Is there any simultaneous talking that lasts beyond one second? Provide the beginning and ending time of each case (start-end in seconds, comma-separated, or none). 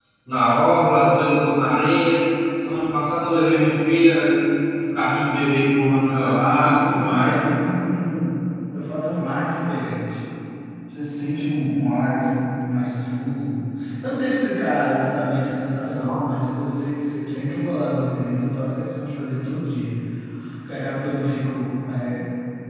6.1-7.4